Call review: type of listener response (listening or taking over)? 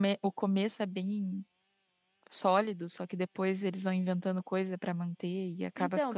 taking over